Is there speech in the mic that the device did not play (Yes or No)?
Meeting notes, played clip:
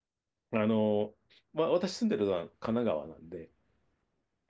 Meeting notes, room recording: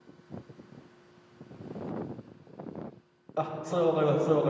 Yes